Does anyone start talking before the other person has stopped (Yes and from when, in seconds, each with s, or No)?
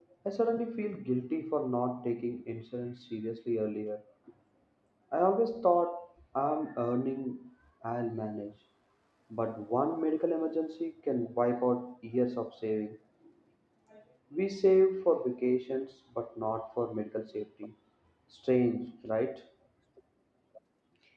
No